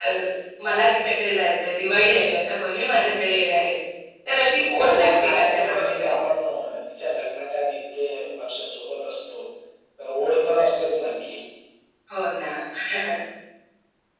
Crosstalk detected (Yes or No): Yes